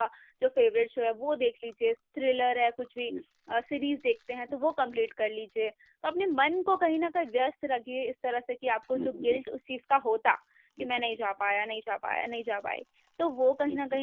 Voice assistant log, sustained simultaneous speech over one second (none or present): none